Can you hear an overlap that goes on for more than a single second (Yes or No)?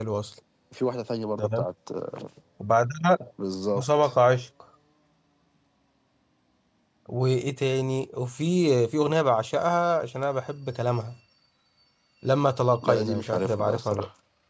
Yes